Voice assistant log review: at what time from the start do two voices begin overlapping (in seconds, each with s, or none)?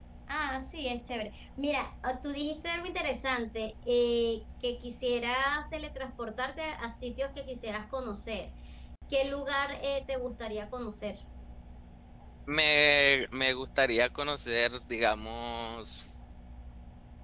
none